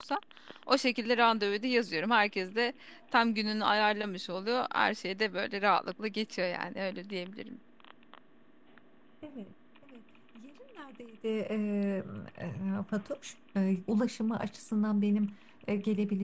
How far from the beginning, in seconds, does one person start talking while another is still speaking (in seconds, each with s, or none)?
none